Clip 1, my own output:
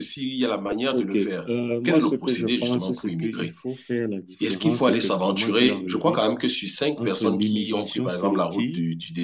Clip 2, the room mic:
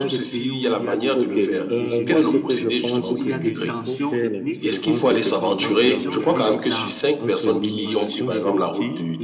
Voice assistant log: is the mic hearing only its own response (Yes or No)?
No